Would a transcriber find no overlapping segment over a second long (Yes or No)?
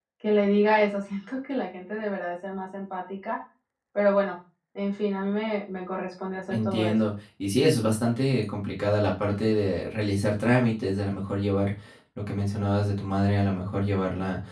Yes